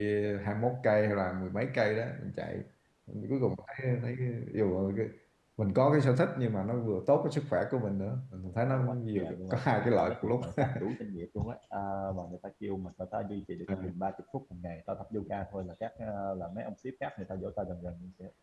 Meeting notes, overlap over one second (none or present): present